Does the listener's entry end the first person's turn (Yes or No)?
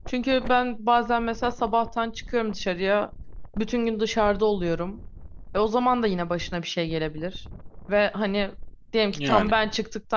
No